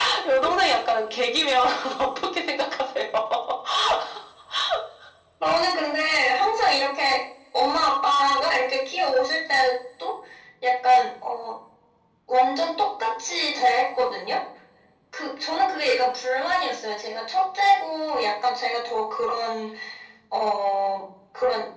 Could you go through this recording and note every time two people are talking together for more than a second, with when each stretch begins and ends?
none

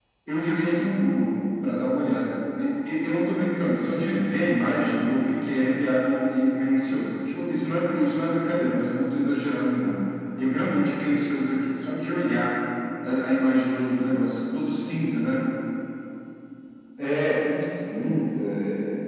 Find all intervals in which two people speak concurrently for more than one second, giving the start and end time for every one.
none

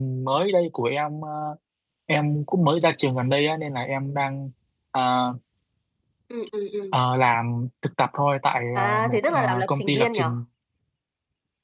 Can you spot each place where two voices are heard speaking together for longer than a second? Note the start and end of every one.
8.8-10.4

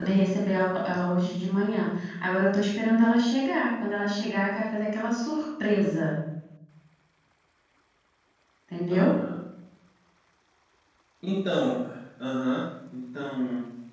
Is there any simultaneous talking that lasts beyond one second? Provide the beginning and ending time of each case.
none

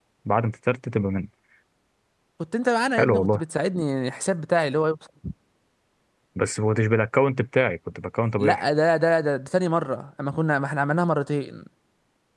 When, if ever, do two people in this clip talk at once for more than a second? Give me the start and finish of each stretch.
none

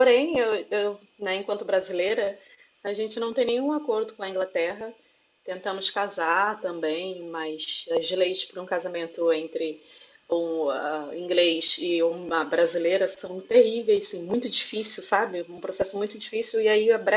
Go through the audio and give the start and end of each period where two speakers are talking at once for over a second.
none

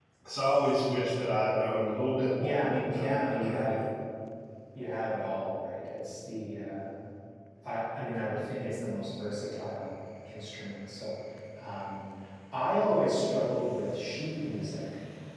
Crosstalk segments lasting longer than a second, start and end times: 2.4-3.8

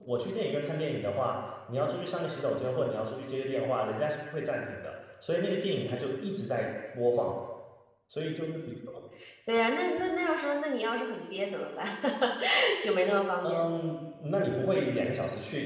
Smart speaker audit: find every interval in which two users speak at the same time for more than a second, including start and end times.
none

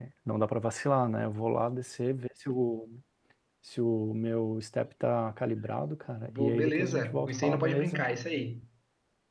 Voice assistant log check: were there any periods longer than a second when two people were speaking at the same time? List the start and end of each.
6.2-8.0

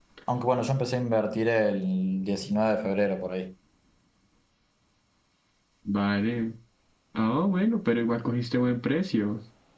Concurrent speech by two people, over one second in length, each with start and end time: none

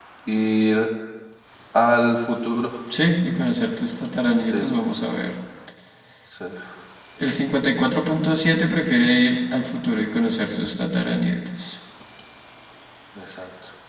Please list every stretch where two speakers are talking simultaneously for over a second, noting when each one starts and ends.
none

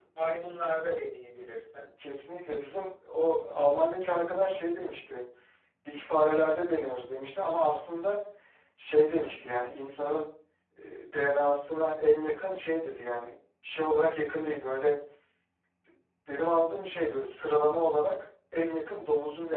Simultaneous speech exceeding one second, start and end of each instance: none

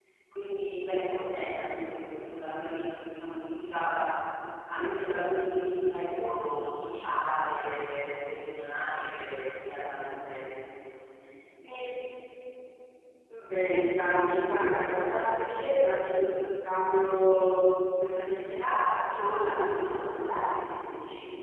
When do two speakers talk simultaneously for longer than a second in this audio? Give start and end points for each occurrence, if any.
14.2-15.7

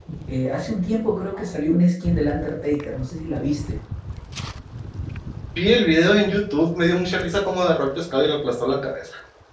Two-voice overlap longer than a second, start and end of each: none

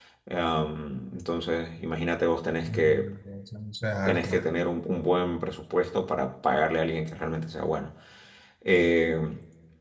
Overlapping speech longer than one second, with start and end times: none

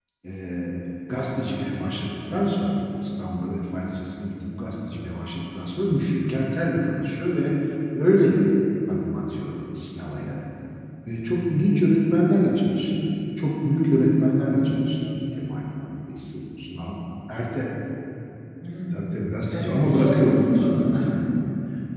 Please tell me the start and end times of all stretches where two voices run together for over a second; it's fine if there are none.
19.5-21.1

